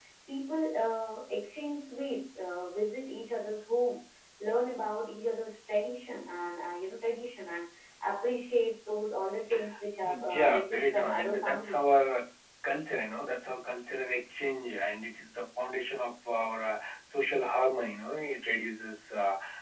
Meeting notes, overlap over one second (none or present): present